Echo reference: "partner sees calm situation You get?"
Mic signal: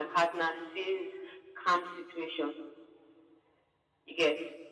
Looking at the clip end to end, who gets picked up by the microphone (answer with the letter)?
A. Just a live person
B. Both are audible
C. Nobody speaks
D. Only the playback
D